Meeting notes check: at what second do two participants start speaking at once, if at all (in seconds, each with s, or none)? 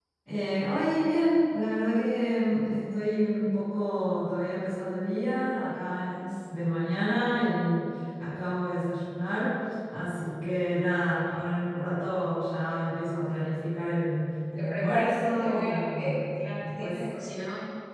14.6 s